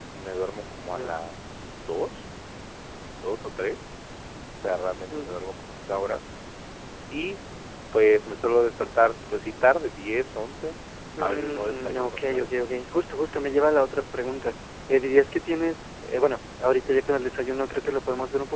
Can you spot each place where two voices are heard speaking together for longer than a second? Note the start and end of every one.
11.2-12.5

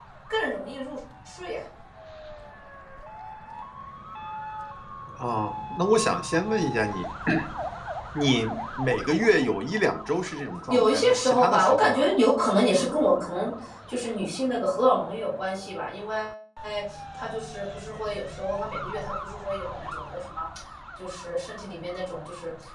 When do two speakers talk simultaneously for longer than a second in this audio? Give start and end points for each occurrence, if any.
10.7-12.1

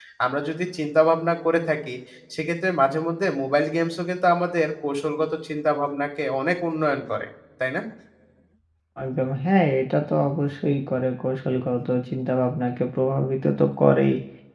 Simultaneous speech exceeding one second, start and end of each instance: none

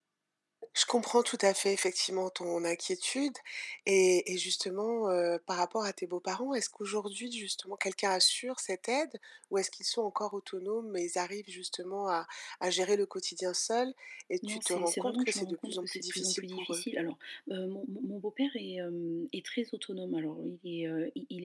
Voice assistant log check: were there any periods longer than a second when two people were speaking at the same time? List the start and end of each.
14.5-16.8

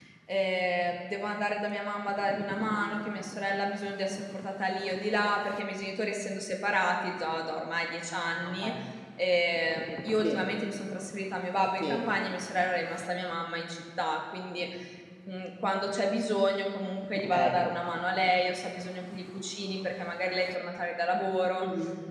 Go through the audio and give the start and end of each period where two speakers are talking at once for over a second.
none

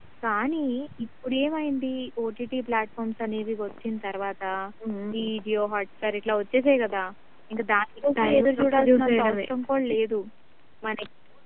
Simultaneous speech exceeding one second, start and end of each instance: 8.1-9.5

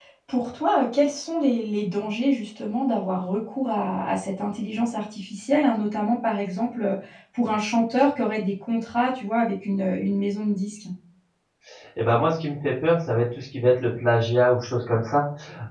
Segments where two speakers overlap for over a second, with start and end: none

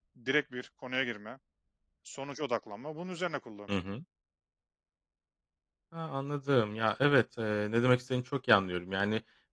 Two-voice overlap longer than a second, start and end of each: none

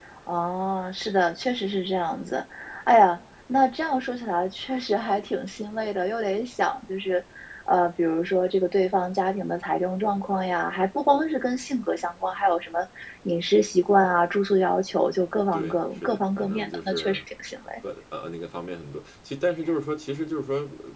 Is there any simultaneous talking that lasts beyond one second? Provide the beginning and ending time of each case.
15.5-17.2

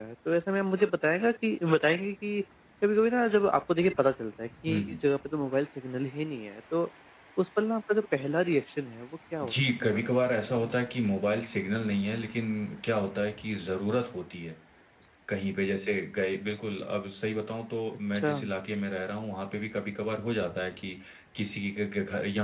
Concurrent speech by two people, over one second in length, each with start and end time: 9.4-10.8

